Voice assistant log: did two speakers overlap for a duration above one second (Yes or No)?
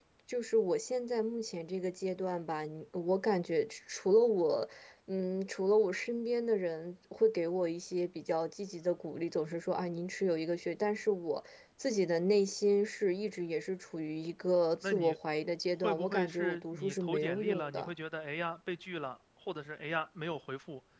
Yes